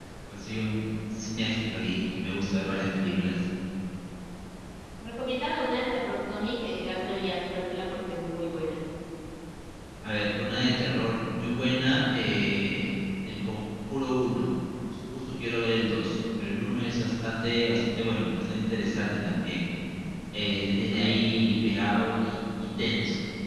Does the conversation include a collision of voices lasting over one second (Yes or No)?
No